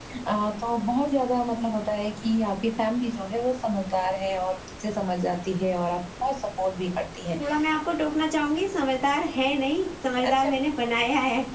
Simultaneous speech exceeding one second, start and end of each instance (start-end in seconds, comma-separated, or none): none